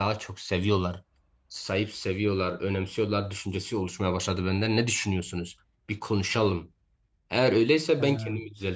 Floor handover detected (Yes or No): No